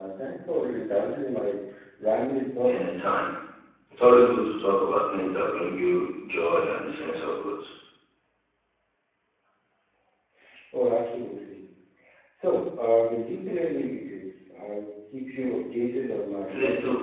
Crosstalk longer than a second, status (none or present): none